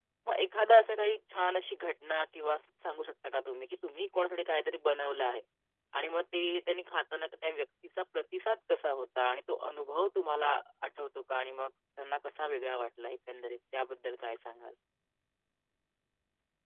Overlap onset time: none

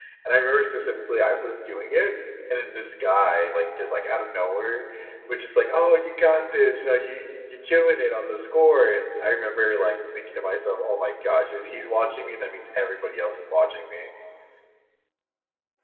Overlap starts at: none

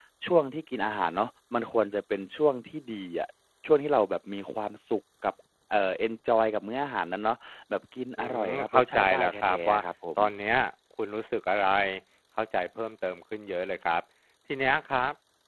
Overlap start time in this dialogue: 8.2 s

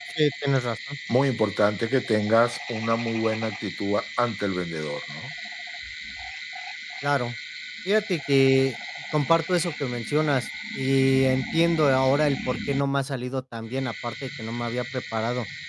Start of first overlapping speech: none

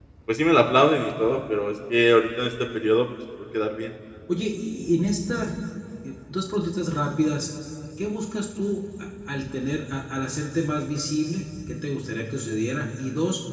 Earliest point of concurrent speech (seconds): none

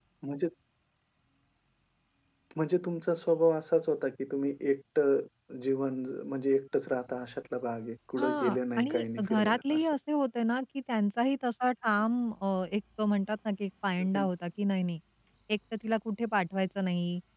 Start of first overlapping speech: 8.2 s

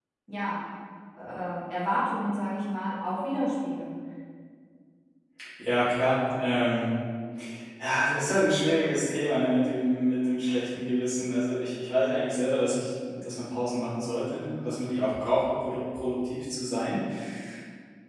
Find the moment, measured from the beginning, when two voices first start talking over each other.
none

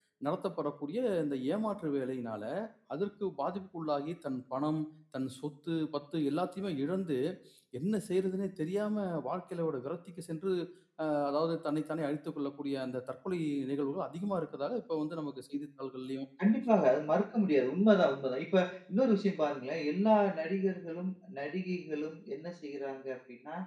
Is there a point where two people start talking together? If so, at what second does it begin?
none

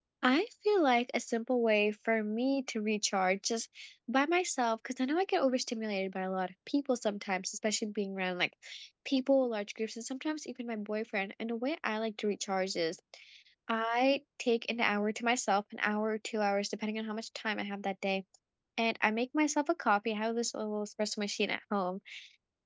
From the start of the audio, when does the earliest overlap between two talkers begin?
none

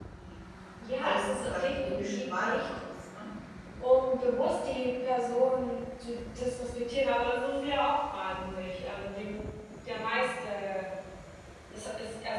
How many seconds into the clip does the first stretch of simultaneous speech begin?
1.0 s

